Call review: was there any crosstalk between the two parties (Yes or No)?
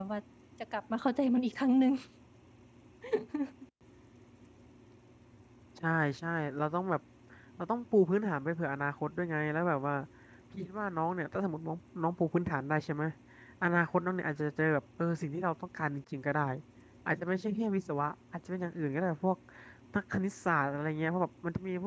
No